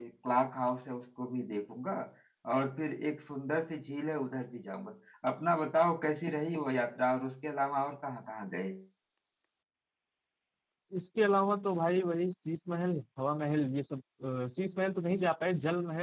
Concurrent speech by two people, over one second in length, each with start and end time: none

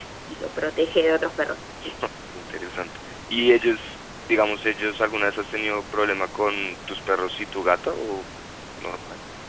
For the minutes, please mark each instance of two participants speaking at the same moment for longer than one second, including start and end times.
none

